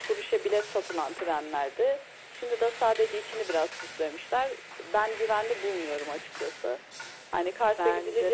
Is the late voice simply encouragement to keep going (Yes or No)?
Yes